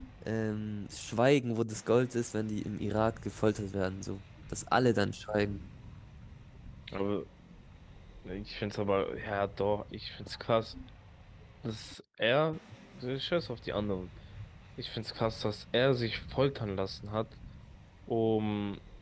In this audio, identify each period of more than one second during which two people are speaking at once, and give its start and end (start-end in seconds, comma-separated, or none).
none